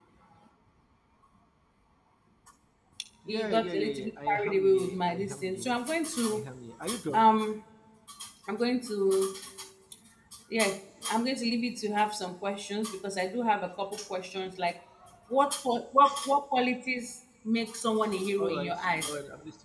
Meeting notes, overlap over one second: present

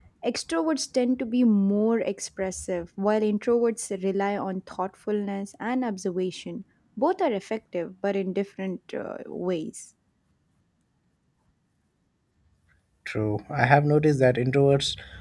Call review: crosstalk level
none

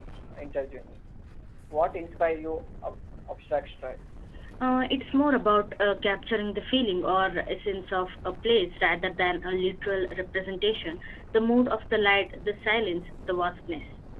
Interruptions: none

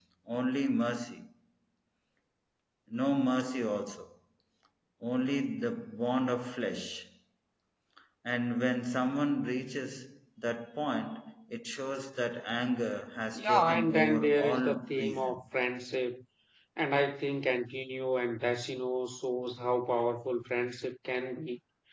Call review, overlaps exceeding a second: present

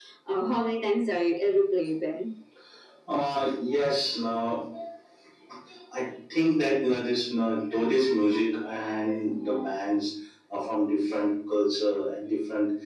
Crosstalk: none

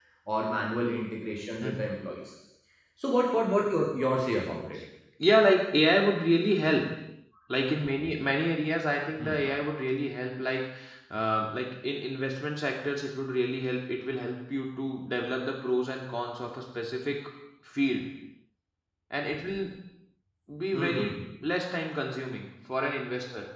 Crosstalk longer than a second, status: none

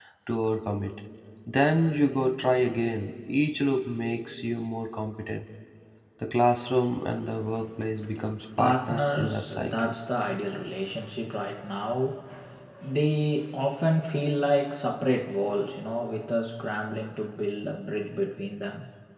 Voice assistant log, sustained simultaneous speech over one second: present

